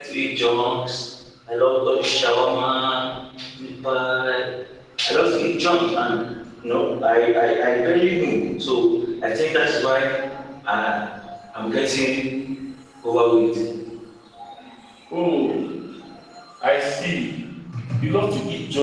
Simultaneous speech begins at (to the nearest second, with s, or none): none